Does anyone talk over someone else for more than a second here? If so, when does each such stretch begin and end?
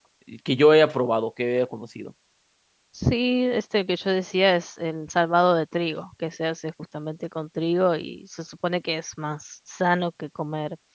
none

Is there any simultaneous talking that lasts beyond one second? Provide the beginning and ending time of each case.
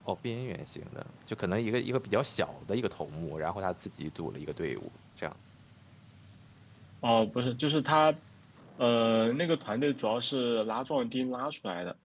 none

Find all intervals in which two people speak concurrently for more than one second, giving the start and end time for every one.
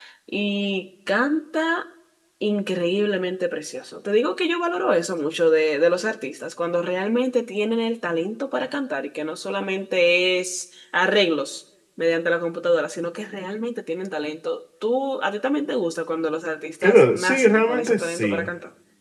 16.8-18.5

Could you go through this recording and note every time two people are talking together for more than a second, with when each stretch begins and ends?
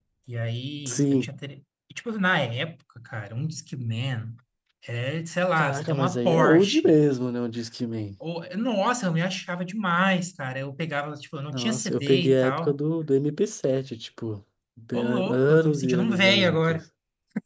5.6-6.9, 11.5-12.8, 14.9-16.8

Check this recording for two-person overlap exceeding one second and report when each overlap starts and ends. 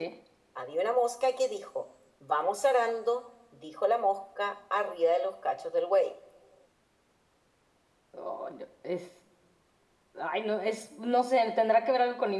none

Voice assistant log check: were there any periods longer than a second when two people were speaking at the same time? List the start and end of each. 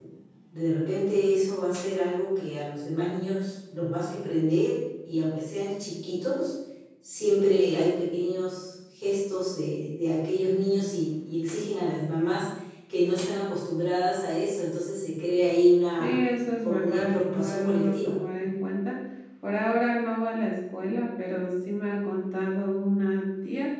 16.6-18.2

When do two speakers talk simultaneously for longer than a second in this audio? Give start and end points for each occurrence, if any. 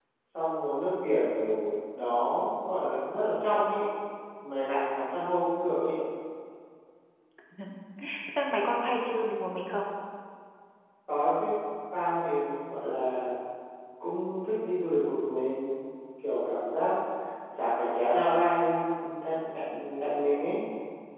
none

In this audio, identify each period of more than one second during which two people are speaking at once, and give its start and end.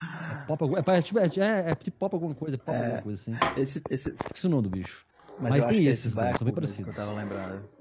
5.5-7.1

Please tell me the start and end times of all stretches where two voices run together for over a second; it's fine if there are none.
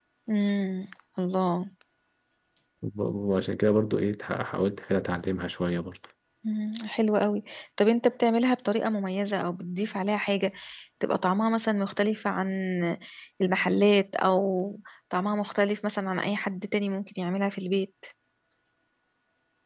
none

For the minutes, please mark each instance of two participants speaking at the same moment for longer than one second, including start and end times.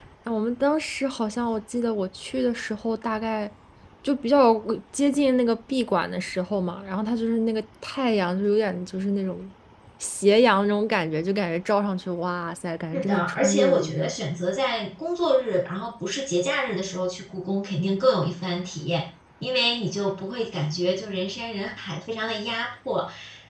12.9-14.1

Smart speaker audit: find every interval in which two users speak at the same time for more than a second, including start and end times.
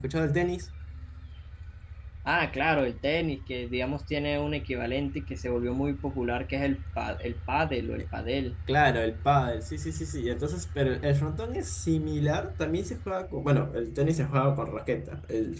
none

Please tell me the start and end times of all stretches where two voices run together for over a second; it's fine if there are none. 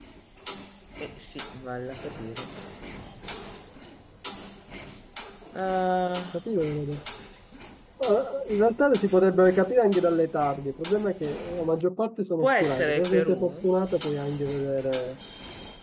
12.4-13.7

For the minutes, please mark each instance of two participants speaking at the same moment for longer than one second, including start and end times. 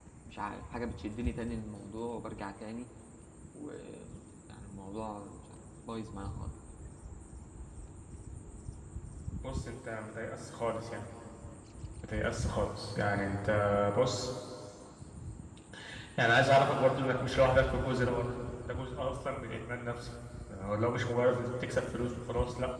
none

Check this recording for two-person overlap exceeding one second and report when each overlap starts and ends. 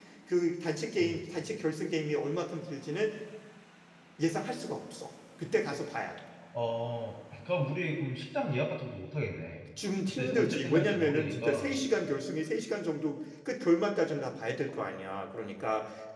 10.1-11.8

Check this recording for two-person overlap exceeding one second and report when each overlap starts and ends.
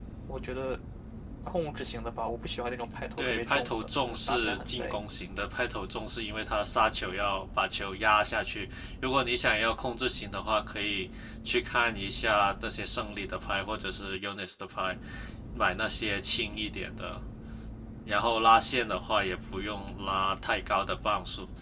3.2-4.9

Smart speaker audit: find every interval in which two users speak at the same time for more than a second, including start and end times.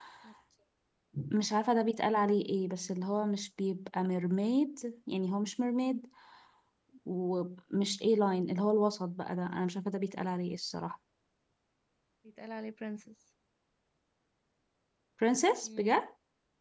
none

